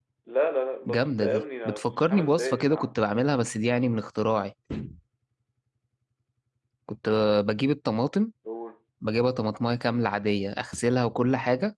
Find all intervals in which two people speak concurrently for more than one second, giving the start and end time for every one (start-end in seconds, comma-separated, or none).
0.9-3.0